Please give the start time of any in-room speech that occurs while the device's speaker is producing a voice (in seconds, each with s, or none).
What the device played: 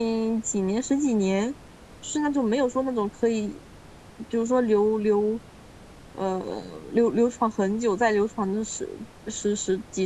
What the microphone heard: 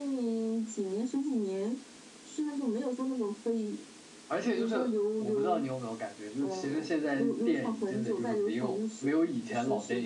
4.3 s